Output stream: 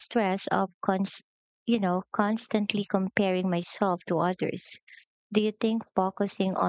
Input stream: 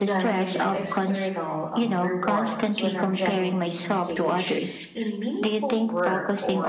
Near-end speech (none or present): present